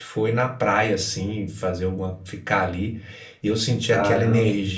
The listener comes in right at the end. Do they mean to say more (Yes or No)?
No